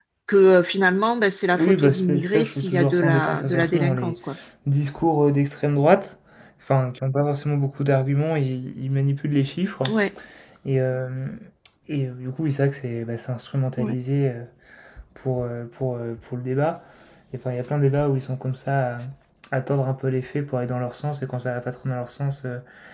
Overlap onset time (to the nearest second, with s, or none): 2 s